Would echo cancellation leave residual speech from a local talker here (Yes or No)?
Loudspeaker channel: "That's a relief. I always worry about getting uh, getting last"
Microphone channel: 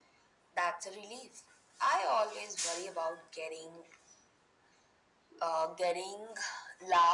No